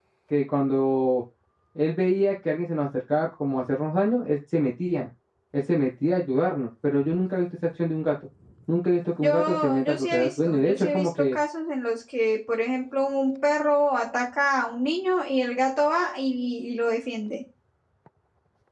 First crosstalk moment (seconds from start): 9 s

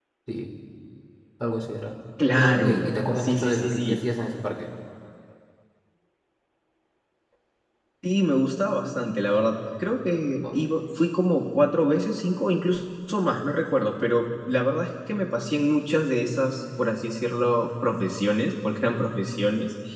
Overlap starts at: 2 s

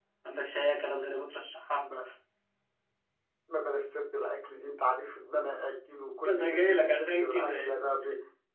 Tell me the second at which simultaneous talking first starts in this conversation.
6 s

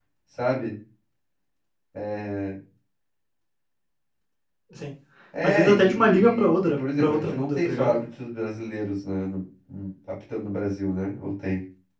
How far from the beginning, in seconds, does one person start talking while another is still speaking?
5 s

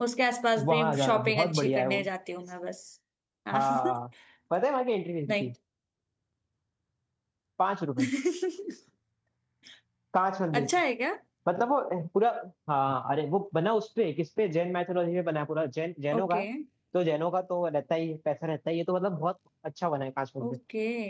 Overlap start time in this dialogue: 1 s

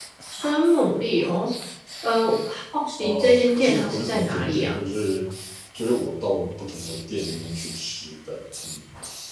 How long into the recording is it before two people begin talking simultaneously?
3 s

